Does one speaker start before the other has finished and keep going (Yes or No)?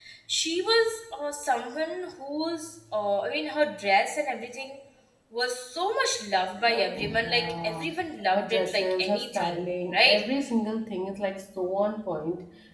Yes